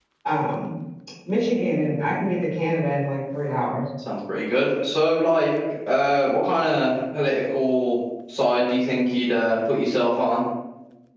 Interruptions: none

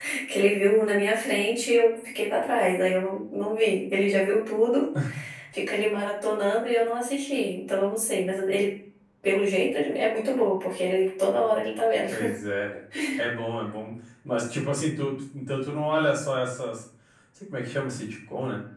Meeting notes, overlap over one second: none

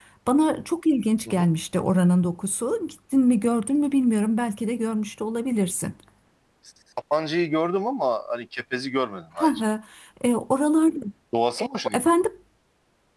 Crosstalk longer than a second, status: none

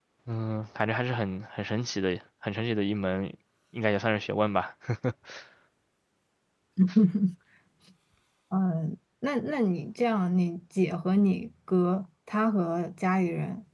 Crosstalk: none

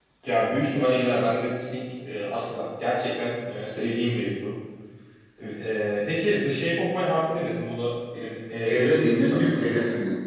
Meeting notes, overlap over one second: present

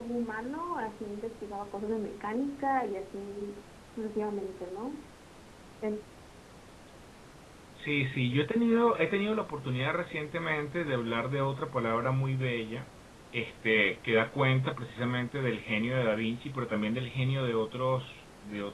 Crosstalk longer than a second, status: none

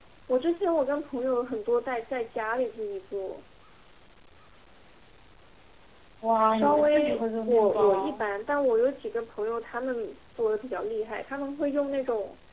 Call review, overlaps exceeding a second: present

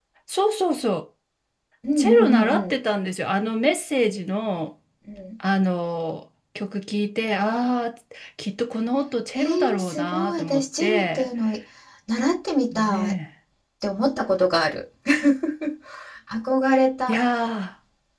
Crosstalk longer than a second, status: present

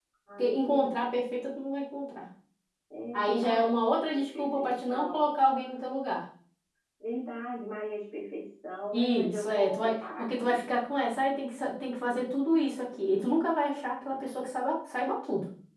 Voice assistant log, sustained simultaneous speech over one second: present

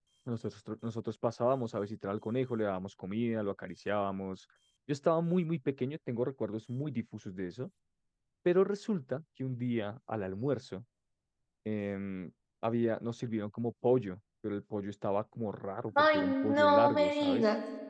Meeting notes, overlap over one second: present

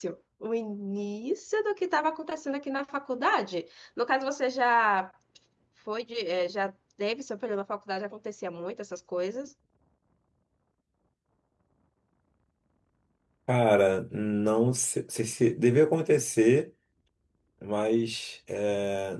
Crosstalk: none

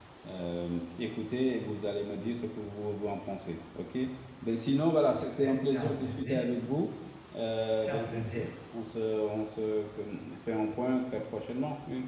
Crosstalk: present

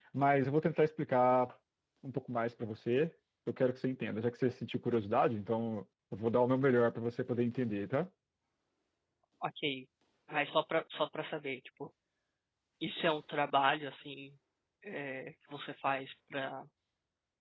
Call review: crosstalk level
none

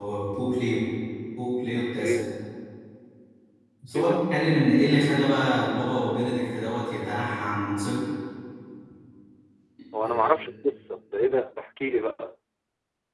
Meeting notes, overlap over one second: none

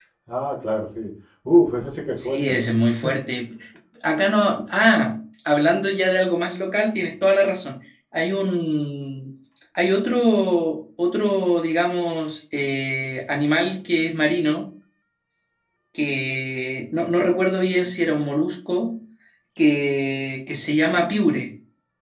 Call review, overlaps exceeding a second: none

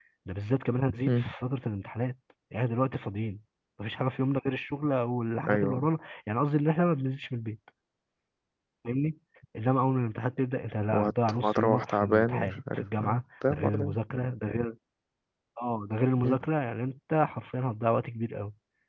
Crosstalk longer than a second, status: present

